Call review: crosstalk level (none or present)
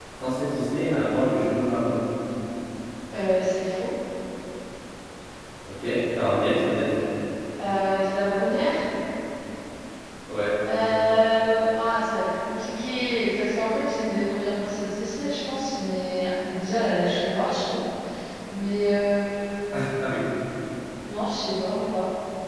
none